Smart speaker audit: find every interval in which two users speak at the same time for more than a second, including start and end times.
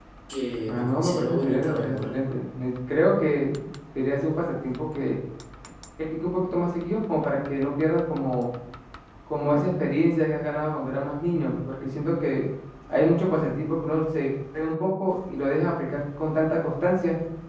0.7-2.1

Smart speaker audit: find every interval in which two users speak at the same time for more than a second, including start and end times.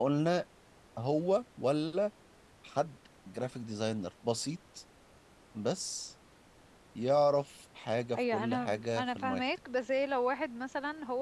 8.2-9.4

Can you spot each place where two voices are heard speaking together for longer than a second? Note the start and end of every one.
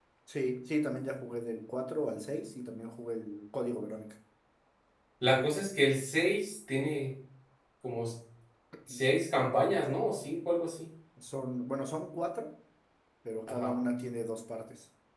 none

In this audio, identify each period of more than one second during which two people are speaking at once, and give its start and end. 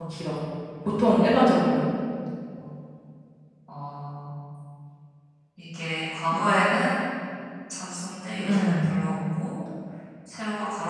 none

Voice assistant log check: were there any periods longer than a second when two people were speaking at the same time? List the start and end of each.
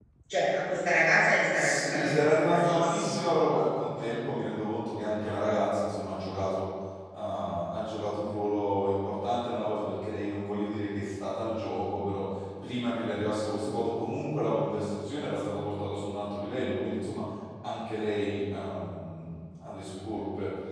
1.5-3.4

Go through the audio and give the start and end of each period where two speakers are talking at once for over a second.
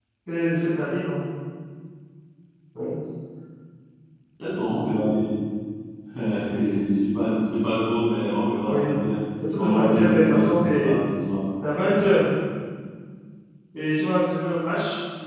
9.6-11.0

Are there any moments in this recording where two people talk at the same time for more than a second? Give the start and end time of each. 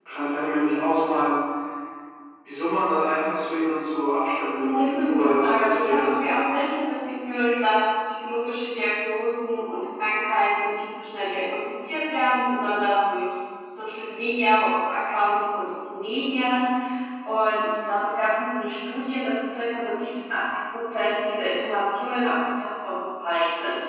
4.6-6.2

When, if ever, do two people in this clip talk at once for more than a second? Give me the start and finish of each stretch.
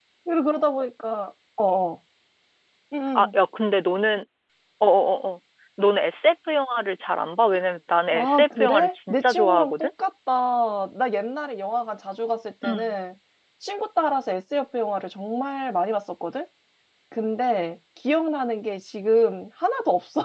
8.1-9.9

